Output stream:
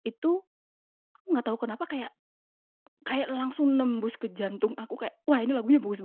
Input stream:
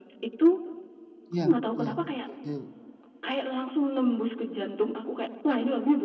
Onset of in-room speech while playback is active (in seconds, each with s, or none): 1.3 s